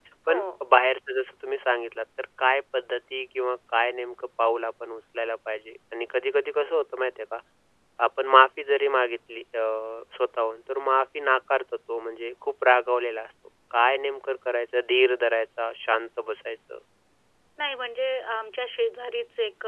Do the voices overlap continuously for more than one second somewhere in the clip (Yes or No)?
No